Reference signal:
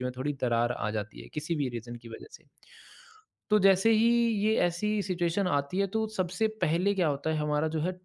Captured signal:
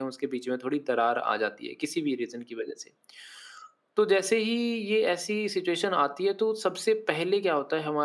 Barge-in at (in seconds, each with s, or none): none